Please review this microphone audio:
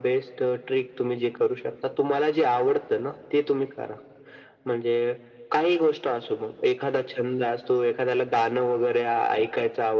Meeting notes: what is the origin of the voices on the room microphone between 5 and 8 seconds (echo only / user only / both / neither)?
echo only